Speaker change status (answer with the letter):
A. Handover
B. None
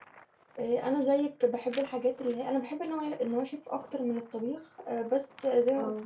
B